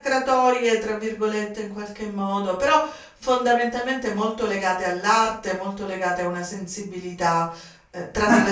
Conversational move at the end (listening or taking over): taking over